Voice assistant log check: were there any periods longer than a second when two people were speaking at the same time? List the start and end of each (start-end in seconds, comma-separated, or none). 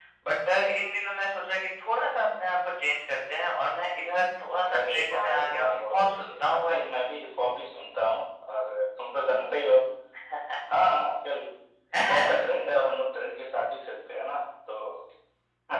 4.8-6.8